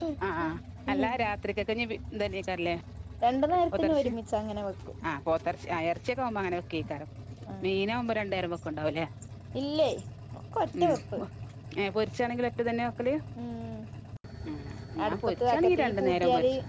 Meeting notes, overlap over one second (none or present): present